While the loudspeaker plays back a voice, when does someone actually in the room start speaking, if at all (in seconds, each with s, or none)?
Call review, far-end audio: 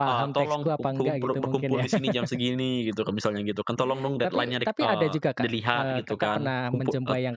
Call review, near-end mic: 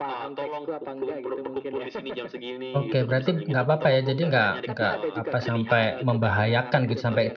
2.8 s